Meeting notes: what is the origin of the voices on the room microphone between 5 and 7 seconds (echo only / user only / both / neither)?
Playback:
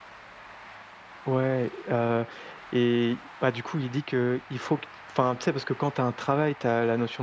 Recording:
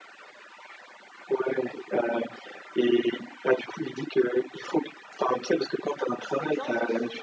both